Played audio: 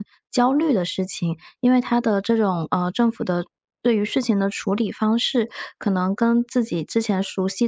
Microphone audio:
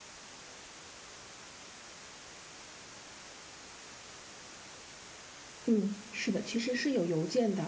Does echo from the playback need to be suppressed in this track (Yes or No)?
No